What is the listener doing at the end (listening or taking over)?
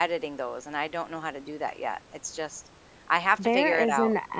taking over